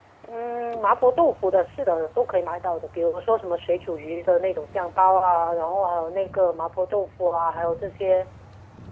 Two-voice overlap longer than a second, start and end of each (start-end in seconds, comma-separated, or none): none